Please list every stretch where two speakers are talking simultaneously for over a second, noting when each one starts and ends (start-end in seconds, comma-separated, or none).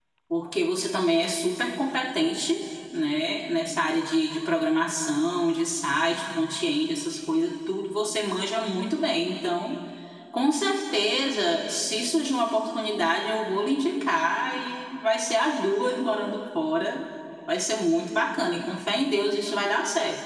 none